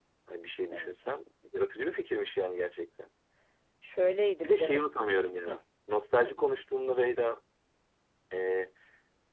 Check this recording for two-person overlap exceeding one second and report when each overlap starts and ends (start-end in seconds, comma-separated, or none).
none